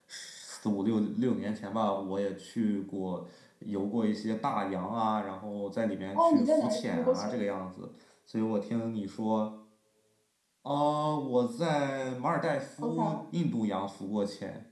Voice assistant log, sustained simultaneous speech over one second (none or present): present